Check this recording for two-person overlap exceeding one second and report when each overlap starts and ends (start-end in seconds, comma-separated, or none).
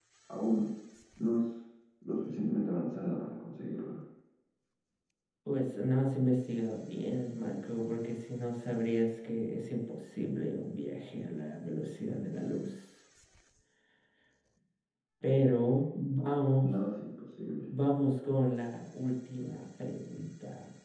none